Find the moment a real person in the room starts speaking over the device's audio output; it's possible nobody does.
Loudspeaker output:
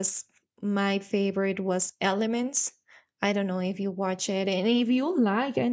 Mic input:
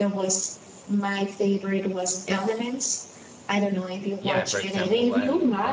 4.2 s

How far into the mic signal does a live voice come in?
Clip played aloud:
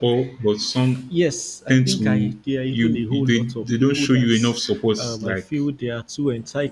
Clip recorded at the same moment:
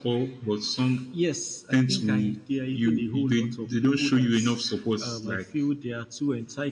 none

